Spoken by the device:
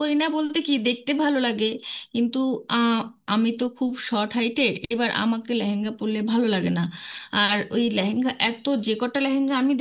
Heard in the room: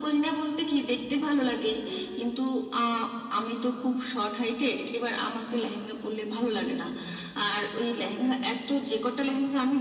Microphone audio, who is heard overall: echo only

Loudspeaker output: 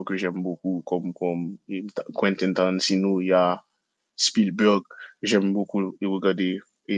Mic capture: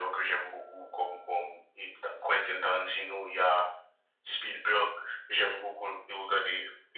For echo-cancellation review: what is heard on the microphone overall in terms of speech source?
echo only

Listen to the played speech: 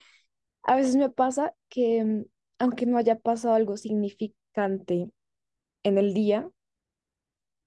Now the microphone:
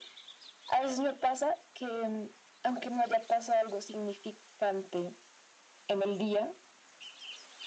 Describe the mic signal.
echo only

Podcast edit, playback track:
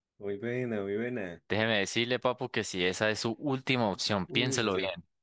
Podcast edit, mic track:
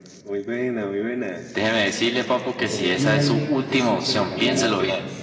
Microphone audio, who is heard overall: both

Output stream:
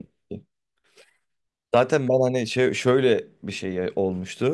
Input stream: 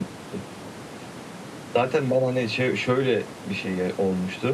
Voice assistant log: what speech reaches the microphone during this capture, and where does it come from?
echo only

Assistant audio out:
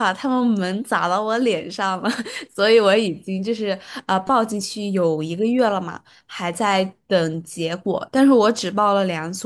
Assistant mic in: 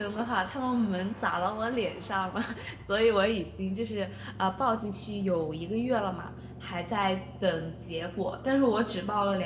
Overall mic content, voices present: echo only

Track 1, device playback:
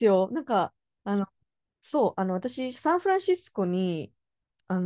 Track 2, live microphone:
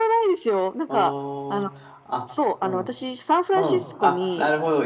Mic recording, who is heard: both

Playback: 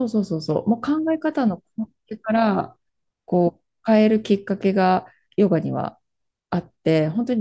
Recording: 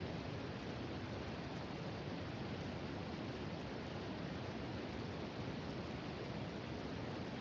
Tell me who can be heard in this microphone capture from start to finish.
neither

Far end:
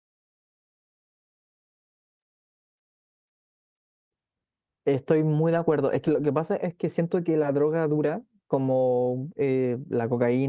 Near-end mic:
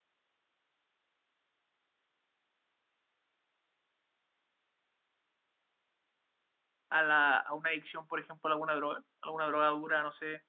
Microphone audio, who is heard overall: user only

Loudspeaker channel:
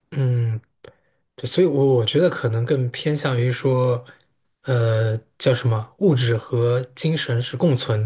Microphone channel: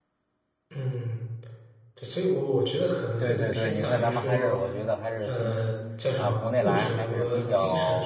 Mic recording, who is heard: both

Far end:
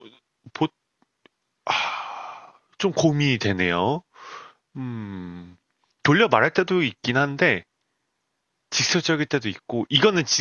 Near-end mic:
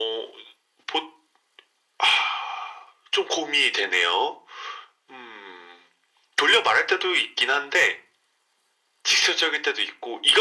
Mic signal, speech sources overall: echo only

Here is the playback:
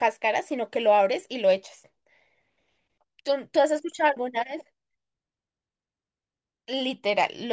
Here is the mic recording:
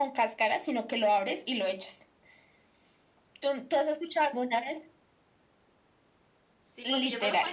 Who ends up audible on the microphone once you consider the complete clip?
both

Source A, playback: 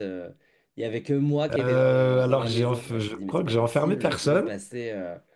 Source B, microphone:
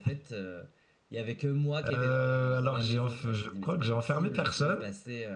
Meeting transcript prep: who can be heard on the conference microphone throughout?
echo only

